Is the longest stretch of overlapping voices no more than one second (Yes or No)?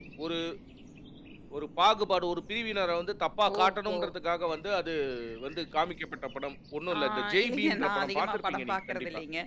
No